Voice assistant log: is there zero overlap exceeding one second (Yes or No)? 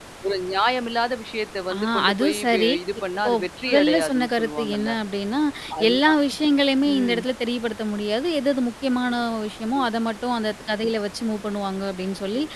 No